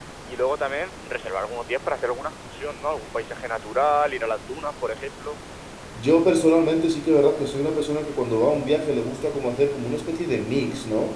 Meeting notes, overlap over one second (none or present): none